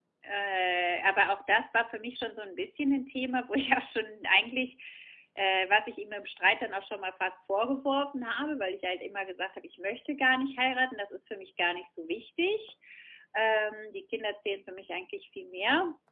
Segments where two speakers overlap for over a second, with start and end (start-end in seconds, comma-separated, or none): none